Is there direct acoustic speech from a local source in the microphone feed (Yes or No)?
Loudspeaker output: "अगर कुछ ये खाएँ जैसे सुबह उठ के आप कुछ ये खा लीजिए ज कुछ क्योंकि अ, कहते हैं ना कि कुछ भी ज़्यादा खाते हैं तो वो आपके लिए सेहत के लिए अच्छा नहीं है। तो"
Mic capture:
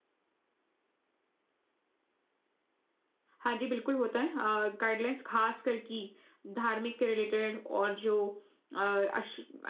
Yes